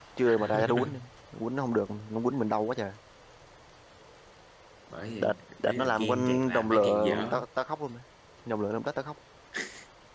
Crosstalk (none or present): present